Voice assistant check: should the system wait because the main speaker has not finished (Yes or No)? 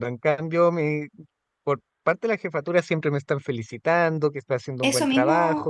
No